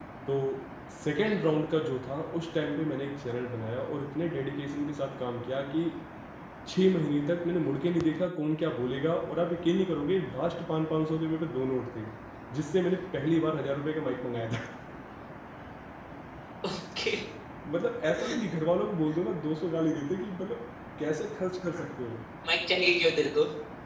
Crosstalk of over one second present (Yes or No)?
No